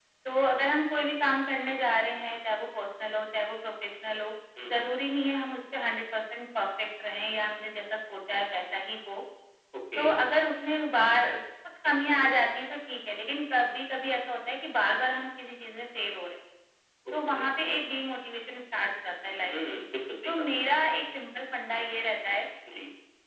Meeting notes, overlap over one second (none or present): none